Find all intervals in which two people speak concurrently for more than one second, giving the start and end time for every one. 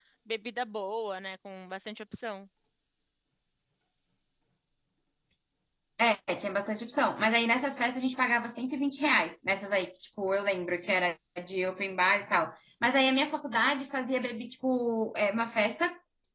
none

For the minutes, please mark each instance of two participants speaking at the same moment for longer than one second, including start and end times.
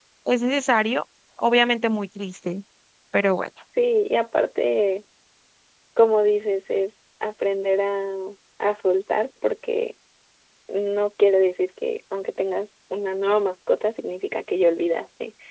none

